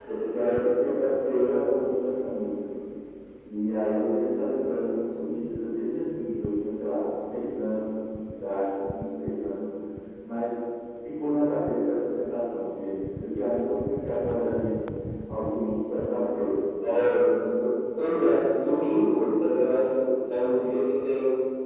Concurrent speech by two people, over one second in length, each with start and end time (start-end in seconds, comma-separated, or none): none